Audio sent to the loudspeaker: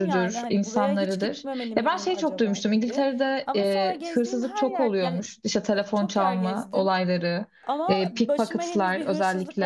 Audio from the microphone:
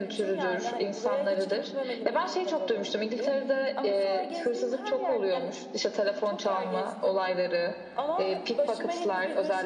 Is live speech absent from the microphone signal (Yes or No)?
Yes